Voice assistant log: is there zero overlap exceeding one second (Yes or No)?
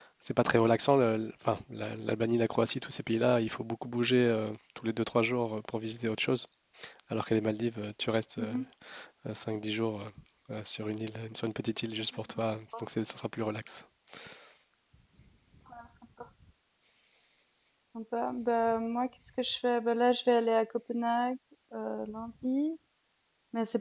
Yes